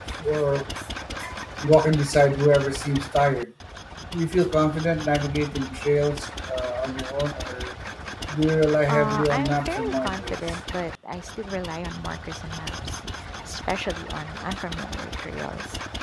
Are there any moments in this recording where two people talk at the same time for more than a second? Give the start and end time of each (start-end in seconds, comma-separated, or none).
8.9-10.4